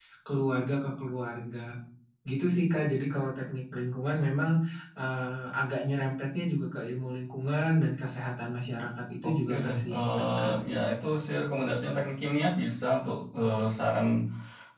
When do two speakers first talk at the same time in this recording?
9.2 s

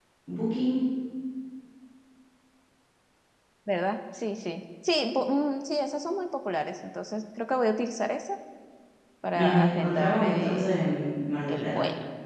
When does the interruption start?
9.3 s

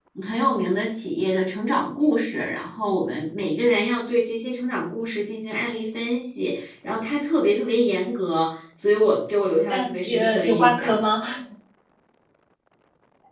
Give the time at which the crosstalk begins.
9.7 s

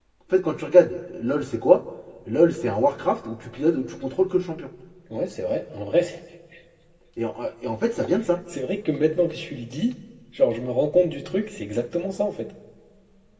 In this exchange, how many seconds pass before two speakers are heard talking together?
none

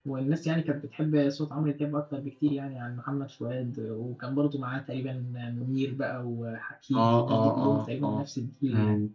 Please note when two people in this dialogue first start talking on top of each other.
6.9 s

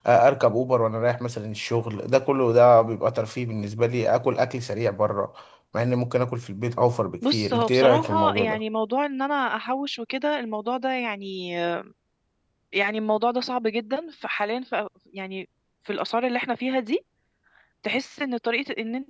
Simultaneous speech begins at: 7.2 s

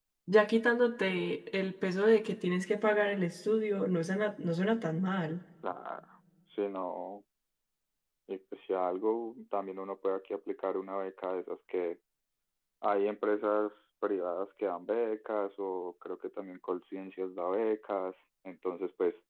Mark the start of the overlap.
none

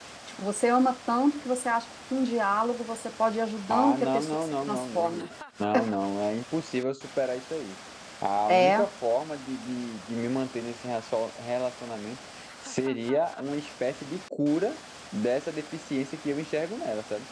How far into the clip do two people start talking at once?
3.7 s

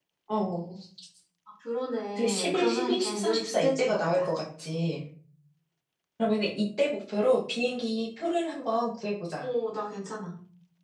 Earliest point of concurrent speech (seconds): 2.2 s

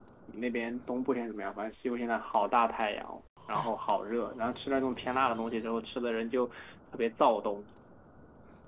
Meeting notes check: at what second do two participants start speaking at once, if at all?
none

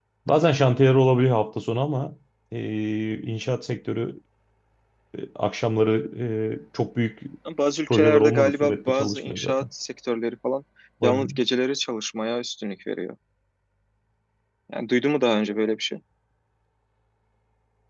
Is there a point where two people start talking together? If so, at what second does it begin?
7.9 s

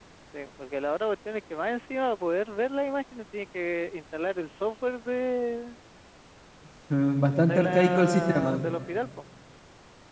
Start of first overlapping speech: 7.4 s

